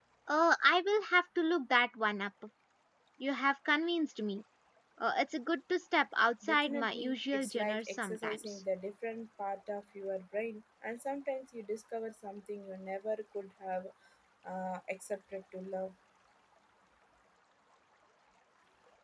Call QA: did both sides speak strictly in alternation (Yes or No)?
No